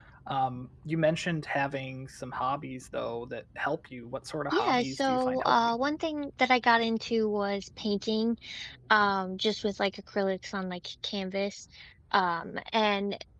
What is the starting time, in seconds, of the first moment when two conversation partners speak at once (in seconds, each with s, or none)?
4.5 s